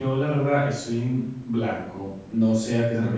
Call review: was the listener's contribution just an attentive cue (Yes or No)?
Yes